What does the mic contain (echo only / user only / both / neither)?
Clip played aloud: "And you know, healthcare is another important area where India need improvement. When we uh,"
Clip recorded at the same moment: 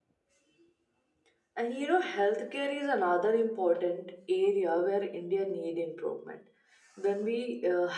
echo only